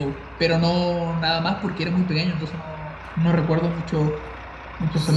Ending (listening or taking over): taking over